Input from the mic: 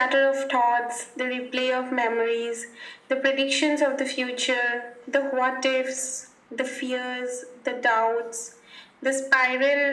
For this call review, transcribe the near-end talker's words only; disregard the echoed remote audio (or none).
none